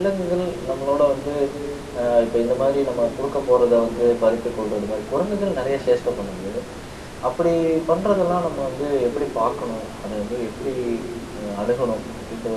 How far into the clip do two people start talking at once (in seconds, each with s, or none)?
none